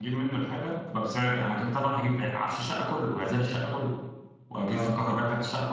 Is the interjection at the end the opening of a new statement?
No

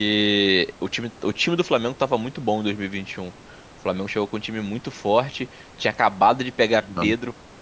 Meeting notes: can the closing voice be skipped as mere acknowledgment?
Yes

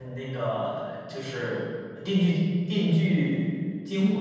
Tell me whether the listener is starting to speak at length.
Yes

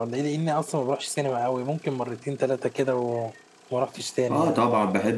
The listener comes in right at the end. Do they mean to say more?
Yes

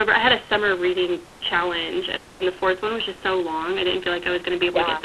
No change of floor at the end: No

